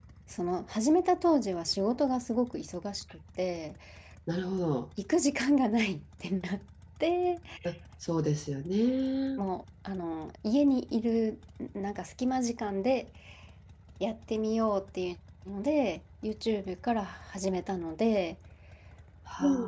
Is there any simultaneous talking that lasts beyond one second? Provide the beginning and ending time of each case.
none

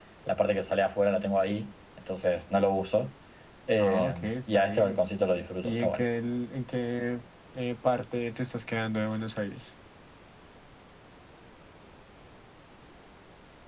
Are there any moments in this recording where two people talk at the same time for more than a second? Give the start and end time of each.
3.8-5.0

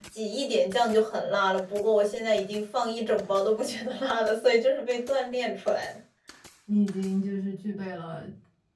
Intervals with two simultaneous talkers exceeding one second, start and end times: none

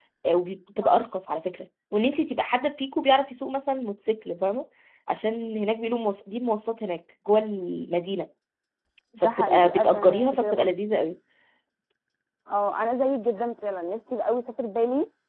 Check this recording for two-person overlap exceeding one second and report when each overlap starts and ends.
9.2-10.7

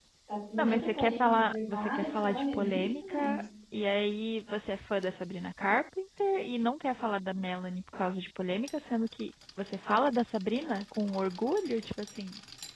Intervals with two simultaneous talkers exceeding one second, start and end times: 0.6-3.4

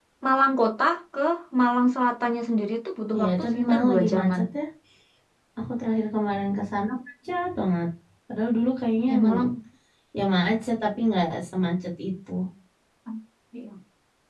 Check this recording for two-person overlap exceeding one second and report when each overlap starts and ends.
3.2-4.4

